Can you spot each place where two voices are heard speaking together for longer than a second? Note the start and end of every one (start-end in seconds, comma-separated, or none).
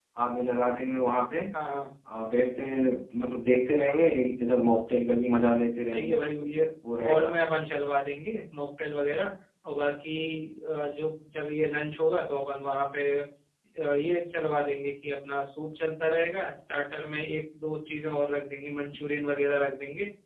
none